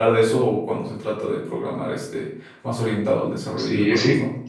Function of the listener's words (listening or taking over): taking over